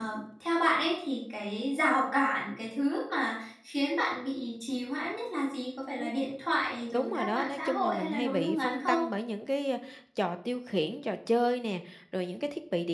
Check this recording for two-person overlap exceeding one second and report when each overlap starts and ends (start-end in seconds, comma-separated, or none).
6.9-9.0